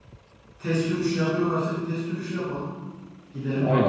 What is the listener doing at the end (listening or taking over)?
taking over